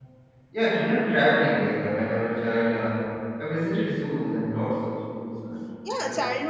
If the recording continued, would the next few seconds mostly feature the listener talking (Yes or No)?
Yes